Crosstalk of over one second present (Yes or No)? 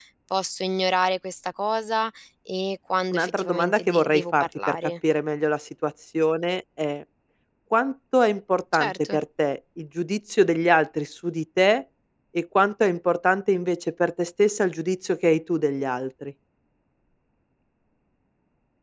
Yes